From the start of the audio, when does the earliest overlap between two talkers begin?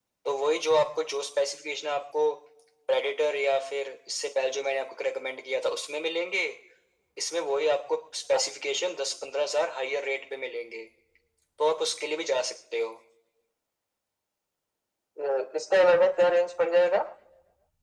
none

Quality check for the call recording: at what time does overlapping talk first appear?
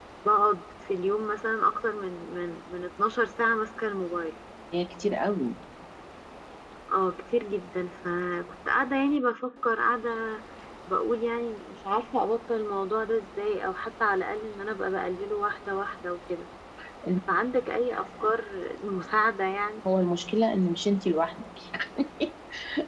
none

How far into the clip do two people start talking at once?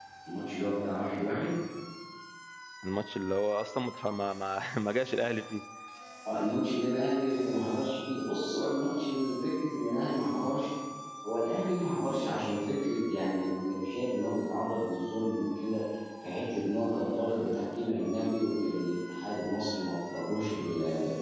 none

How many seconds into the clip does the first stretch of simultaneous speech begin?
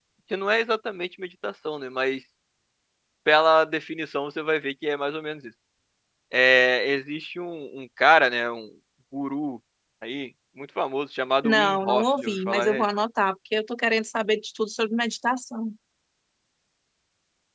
11.4 s

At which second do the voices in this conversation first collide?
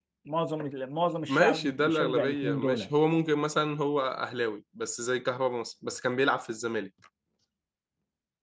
1.3 s

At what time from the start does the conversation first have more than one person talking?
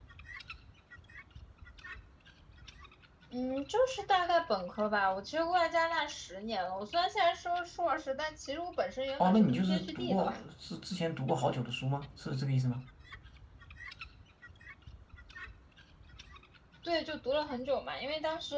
9.2 s

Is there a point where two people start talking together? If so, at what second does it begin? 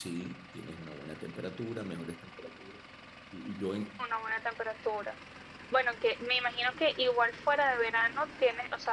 none

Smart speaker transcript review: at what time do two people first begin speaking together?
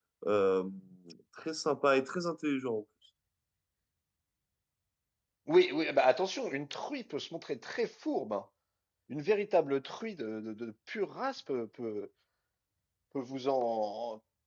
none

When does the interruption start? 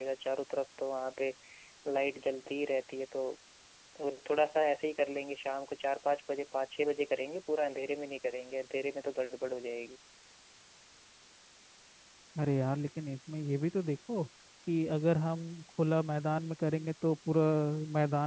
none

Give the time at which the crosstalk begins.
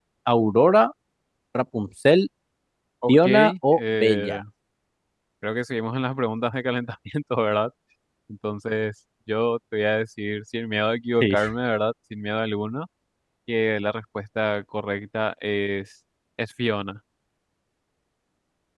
3.1 s

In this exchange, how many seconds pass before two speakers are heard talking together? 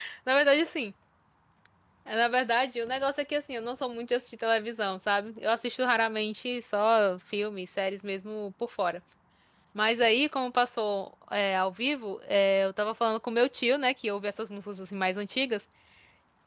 none

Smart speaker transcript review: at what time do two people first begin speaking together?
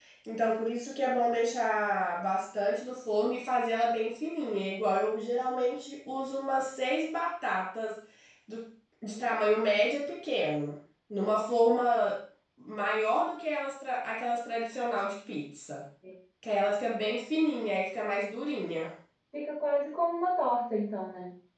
none

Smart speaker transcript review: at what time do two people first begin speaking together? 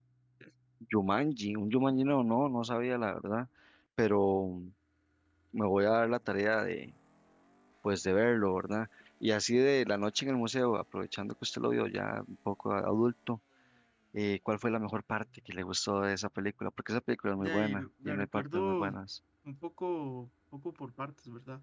17.4 s

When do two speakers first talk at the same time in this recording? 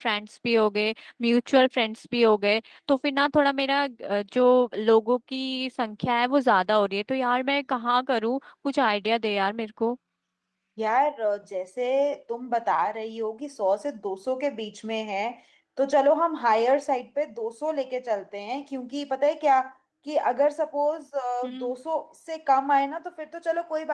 none

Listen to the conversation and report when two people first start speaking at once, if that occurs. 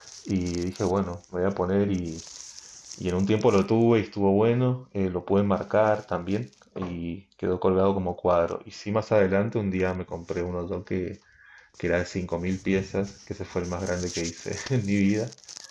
none

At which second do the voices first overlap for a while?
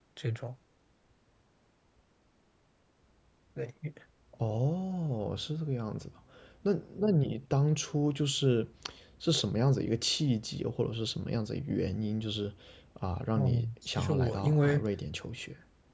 13.3 s

